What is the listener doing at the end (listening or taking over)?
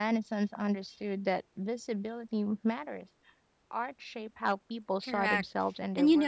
taking over